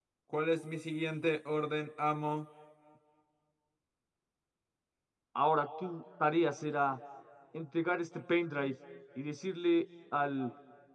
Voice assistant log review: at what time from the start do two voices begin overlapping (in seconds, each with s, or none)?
none